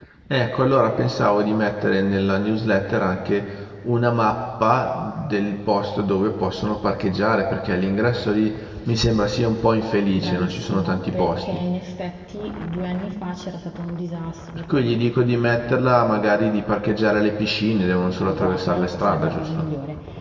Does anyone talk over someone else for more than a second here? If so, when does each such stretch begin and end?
10.2-11.6, 18.2-19.7

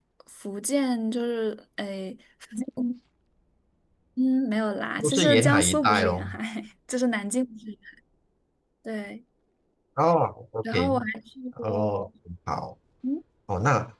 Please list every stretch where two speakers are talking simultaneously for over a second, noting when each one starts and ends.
5.0-6.4

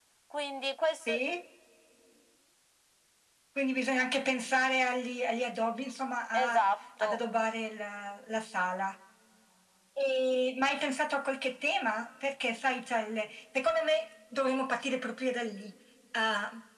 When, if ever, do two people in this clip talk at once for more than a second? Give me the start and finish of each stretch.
none

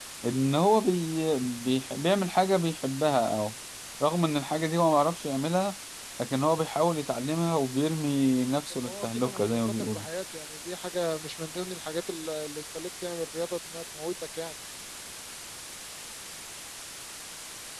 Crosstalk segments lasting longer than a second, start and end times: 8.8-10.0

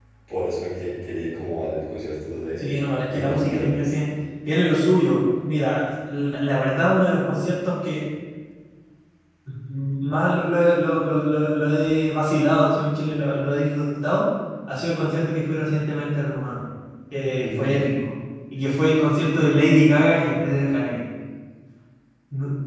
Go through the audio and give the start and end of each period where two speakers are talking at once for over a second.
2.6-3.9

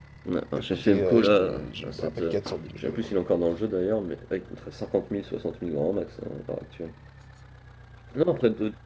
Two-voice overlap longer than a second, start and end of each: 0.6-2.4

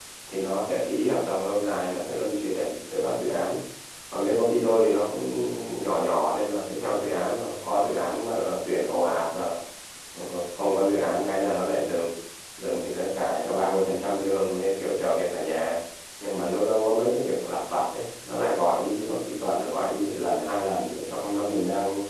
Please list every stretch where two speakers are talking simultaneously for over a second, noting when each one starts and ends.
none

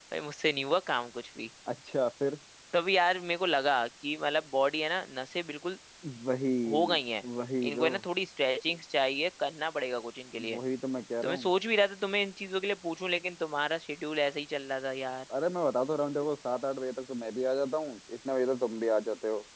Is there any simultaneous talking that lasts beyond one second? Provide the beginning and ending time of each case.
none

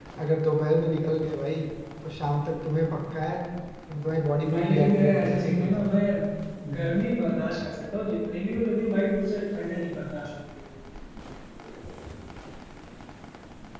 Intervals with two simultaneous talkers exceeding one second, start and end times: 4.5-5.8

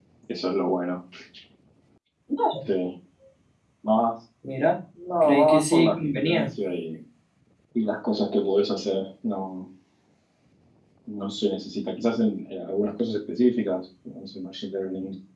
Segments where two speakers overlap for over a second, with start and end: 5.2-6.5

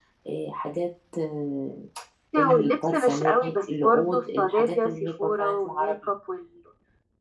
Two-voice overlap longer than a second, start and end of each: 2.4-6.0

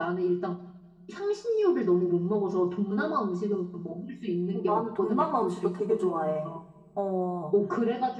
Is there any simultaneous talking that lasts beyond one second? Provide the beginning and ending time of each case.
4.5-6.5

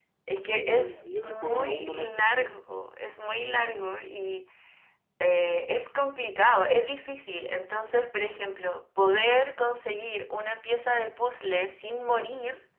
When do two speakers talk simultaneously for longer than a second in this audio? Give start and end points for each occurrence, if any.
0.6-2.6

